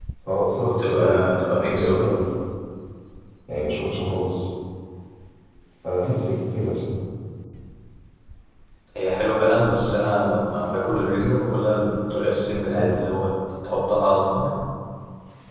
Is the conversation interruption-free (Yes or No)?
No